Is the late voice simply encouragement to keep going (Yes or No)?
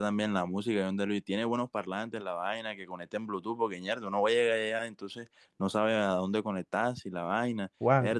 No